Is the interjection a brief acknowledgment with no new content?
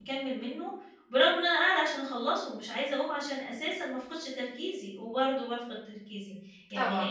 Yes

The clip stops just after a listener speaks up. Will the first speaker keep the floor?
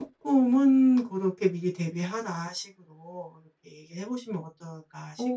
No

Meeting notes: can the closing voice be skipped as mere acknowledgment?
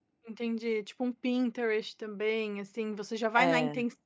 Yes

